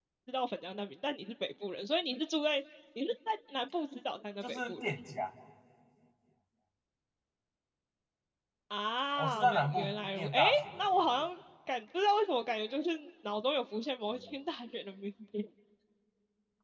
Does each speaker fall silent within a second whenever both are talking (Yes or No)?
No